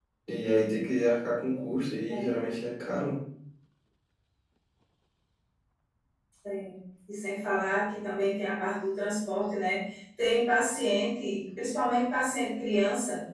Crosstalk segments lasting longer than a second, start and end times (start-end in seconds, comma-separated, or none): none